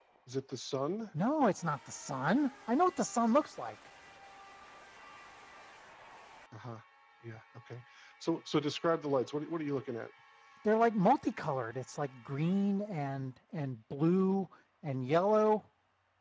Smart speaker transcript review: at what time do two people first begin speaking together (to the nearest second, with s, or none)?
none